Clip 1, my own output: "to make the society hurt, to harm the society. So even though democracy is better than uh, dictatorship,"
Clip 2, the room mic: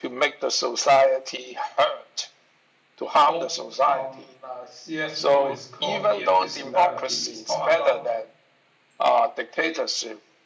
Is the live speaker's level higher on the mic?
No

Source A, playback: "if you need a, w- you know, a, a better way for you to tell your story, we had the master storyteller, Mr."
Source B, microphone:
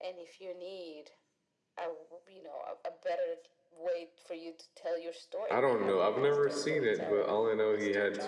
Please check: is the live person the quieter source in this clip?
No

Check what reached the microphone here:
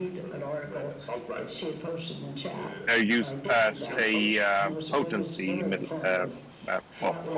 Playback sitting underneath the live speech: Yes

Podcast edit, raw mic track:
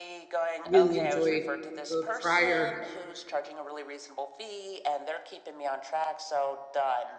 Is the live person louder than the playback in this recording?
Yes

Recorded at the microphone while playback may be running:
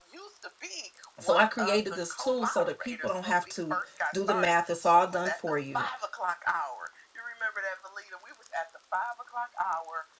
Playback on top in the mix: No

